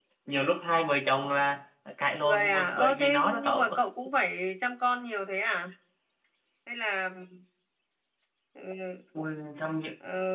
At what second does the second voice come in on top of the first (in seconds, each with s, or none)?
2.2 s